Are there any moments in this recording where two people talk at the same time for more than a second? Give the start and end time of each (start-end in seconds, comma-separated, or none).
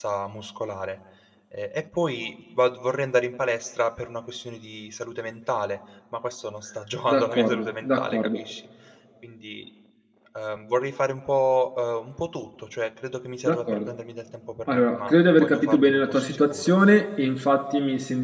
7.1-8.4, 14.7-16.7